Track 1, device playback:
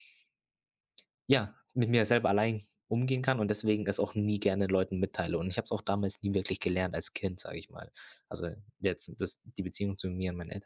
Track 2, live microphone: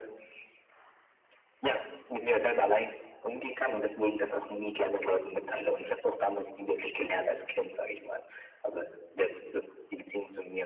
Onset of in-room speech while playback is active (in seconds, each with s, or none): none